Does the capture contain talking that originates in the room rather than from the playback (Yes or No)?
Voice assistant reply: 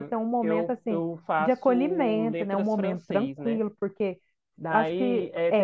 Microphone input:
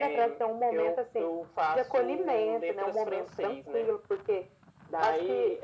No